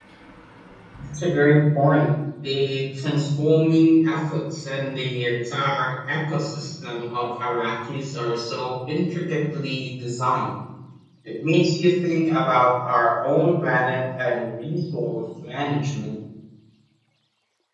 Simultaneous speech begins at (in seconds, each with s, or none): none